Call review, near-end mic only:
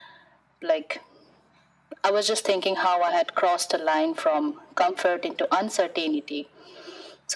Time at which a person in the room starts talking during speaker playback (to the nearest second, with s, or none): none